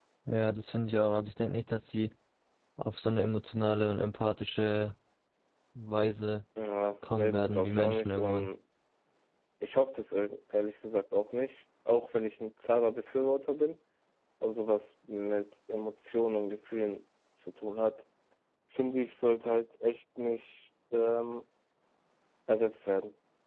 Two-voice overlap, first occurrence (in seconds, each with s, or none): 7.1 s